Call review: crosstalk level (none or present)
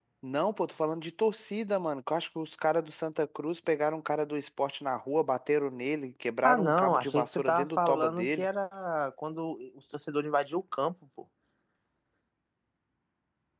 present